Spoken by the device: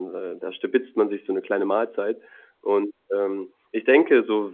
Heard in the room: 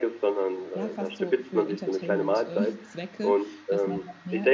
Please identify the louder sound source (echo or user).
echo